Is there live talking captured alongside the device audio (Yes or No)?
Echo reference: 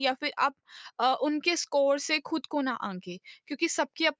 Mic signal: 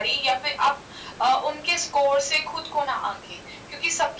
No